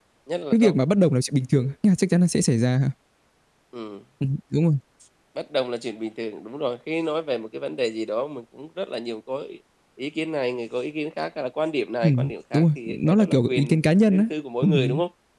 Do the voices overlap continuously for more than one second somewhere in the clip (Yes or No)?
Yes